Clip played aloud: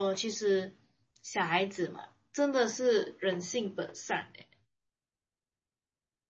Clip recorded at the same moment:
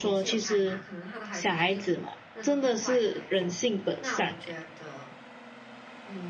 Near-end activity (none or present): present